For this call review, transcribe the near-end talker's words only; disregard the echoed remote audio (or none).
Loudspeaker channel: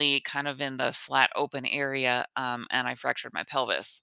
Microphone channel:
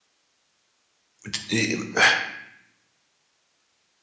d- i-